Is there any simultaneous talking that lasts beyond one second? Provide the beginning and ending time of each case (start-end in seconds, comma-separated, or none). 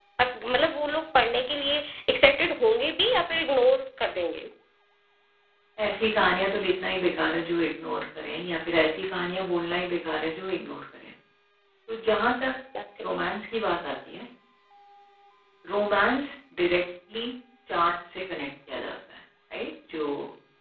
none